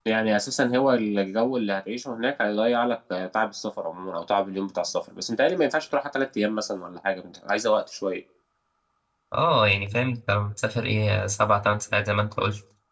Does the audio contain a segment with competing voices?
No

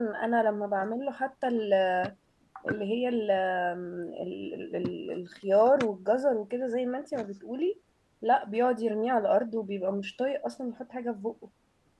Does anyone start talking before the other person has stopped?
No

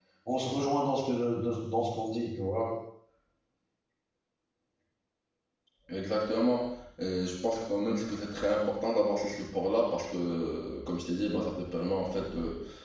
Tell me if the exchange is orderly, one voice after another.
Yes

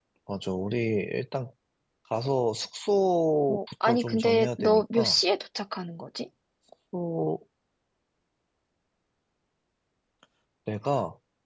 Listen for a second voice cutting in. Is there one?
Yes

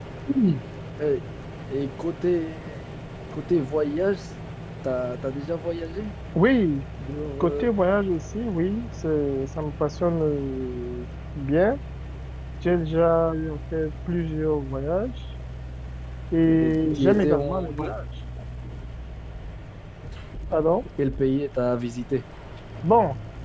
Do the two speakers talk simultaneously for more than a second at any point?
Yes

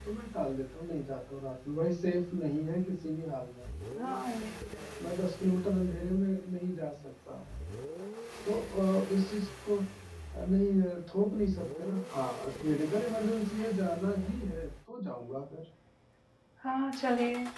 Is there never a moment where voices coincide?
Yes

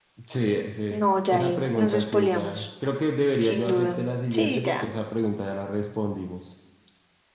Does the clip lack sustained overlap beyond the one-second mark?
No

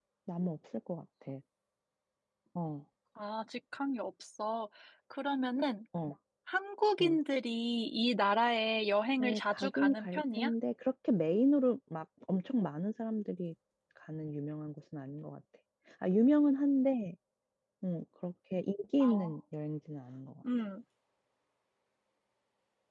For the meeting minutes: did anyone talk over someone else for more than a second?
Yes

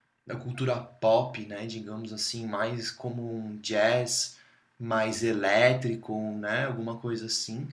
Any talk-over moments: No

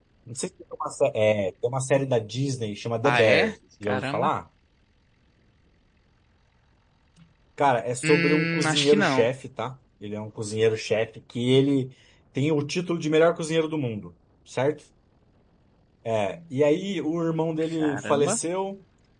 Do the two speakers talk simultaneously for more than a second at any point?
Yes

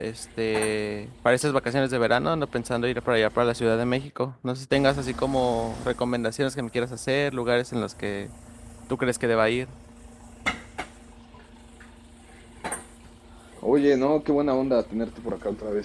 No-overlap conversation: Yes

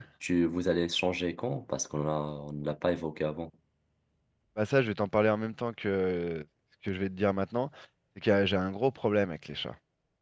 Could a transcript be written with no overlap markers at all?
Yes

